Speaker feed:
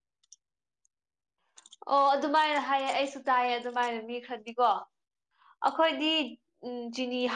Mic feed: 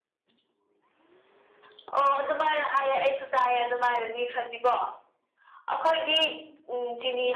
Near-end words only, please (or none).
none